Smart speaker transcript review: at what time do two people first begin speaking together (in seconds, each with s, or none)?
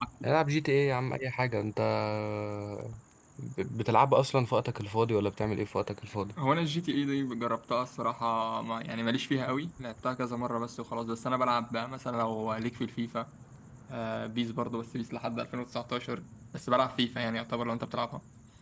none